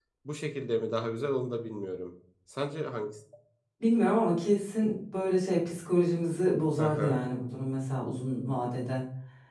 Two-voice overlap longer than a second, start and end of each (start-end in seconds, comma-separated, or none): none